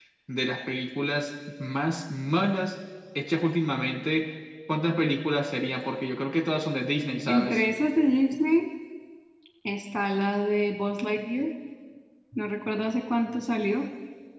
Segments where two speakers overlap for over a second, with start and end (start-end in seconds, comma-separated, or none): none